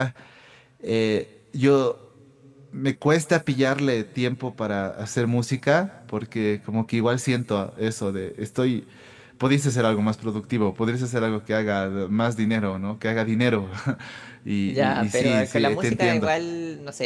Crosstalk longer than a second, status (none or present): present